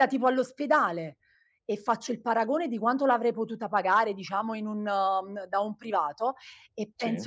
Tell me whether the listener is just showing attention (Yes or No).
Yes